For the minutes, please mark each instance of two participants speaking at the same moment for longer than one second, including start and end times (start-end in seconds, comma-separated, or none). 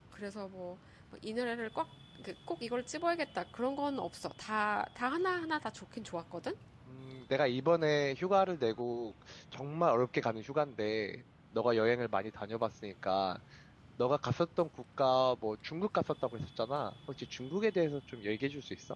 none